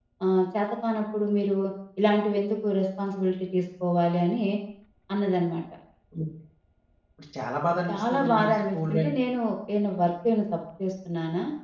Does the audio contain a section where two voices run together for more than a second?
Yes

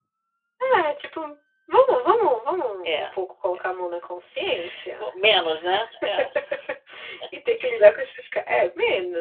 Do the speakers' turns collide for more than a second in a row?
No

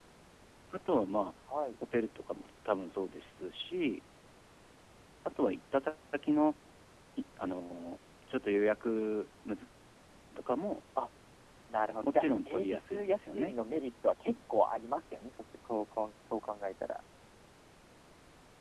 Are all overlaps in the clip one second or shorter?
No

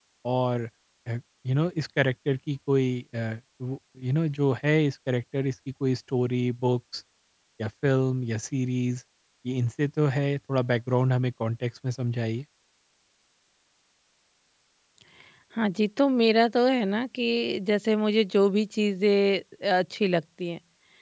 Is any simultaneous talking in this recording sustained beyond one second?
No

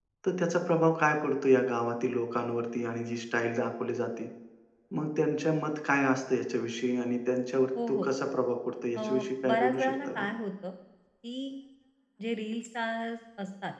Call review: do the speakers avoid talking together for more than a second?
No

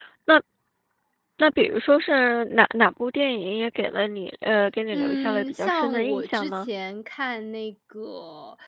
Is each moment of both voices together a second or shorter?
No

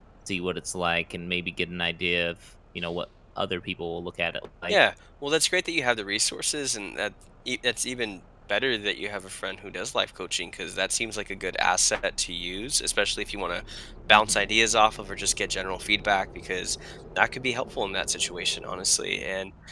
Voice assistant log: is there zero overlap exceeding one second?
Yes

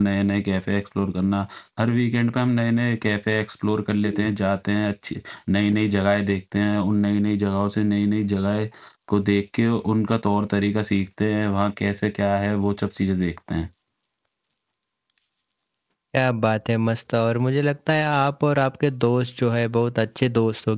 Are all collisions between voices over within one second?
Yes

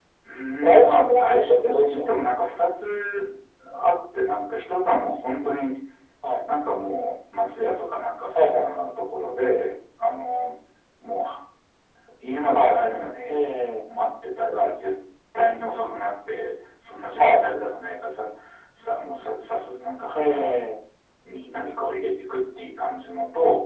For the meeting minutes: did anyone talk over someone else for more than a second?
Yes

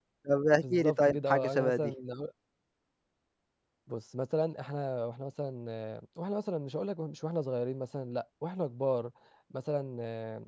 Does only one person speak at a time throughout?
No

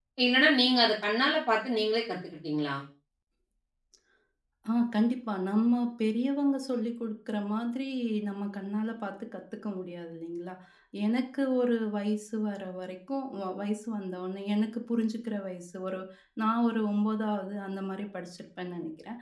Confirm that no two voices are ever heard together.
Yes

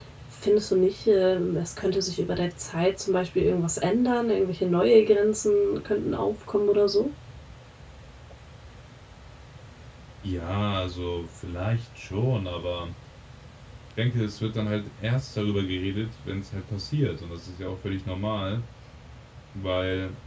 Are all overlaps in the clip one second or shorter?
Yes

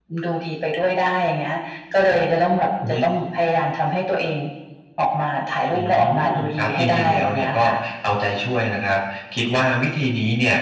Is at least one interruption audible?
Yes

